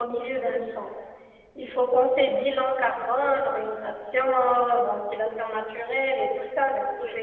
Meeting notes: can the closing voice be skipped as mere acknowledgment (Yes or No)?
Yes